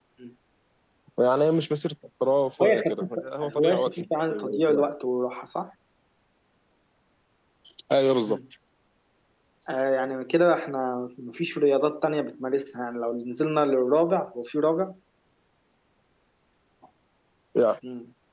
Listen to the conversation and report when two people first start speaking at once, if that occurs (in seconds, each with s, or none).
2.6 s